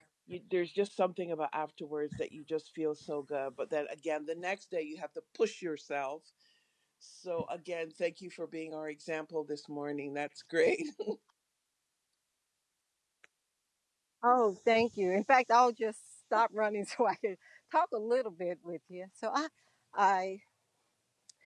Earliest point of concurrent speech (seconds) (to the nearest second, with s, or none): none